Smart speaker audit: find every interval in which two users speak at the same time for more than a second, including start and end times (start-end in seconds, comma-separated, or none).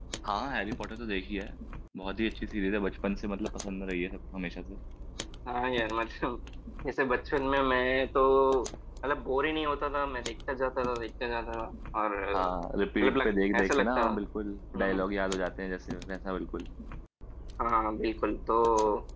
13.0-14.2